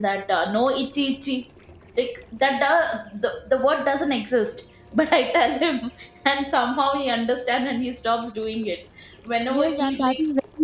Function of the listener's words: taking over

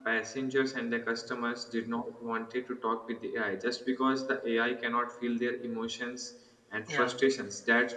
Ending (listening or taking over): listening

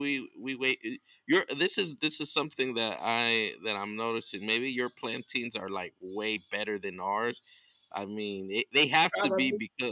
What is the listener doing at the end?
listening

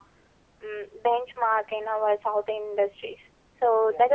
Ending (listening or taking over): listening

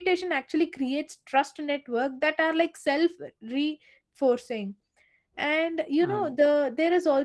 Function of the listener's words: listening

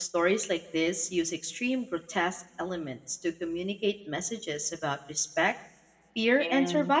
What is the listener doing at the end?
taking over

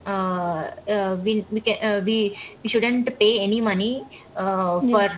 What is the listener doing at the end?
listening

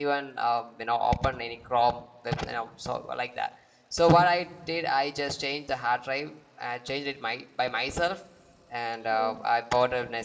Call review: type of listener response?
listening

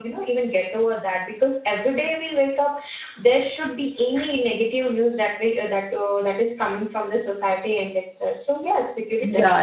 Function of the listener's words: listening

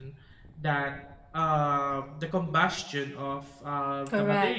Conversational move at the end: listening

